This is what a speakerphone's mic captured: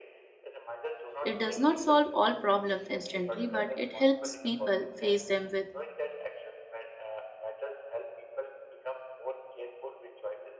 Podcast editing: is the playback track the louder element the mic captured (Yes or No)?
No